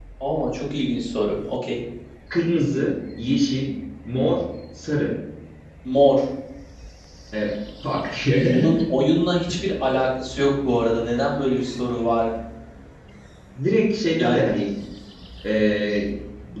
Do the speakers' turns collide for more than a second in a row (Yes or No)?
No